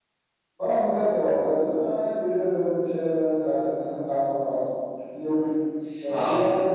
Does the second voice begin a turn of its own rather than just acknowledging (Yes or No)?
No